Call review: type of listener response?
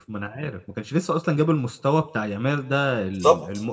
listening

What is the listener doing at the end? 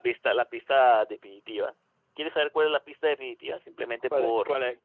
taking over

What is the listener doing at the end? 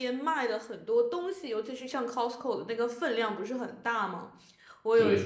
listening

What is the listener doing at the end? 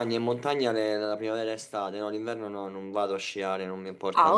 taking over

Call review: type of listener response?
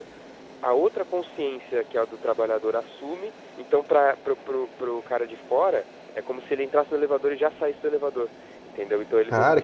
taking over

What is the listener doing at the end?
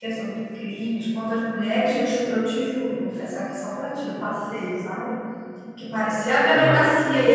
listening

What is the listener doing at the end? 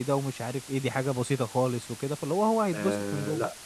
taking over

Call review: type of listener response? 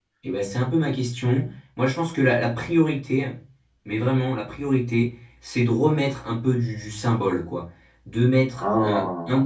listening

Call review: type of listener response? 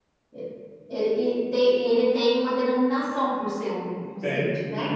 taking over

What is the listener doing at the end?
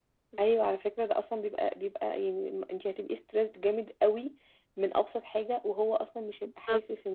taking over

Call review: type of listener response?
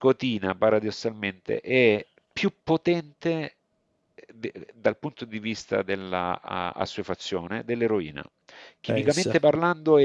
listening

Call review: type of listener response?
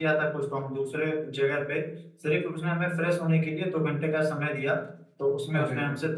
listening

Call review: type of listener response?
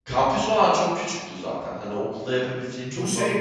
taking over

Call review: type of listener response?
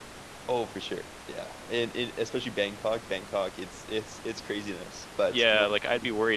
taking over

